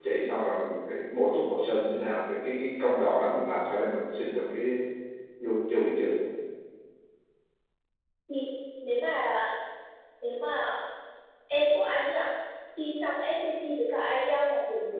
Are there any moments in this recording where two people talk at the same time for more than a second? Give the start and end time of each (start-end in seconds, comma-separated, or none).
none